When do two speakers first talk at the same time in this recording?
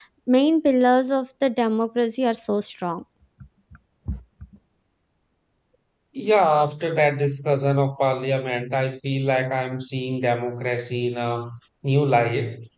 none

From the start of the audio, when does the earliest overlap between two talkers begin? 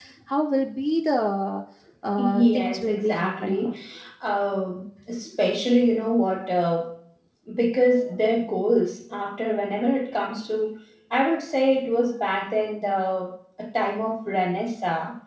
2.2 s

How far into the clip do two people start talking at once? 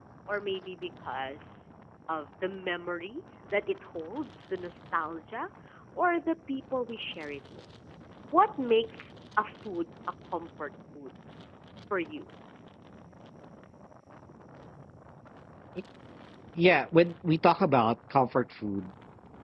none

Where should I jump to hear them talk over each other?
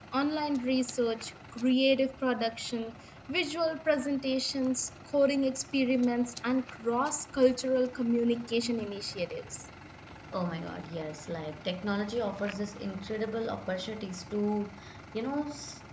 none

